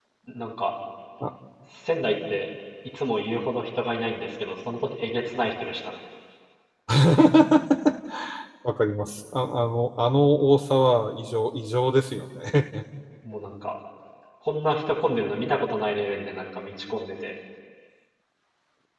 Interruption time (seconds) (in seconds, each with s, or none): none